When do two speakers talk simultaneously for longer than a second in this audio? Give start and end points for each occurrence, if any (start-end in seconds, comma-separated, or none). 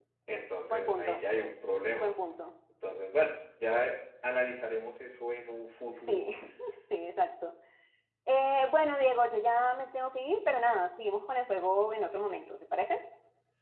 none